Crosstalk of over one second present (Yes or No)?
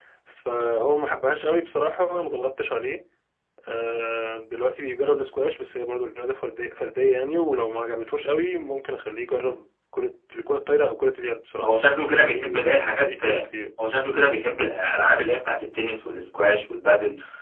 Yes